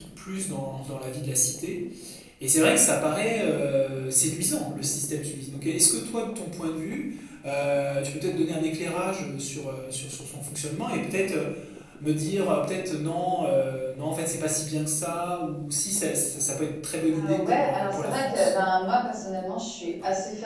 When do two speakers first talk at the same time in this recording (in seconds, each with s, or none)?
17.1 s